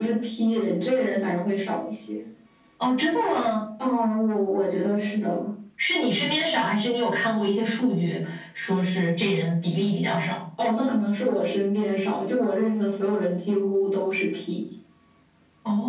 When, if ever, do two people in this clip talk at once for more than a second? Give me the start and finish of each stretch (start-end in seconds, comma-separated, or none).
none